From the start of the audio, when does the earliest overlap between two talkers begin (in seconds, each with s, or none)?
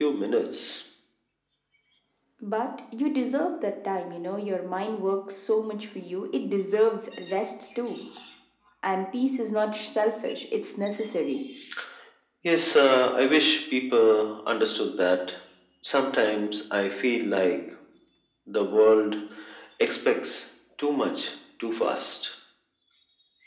none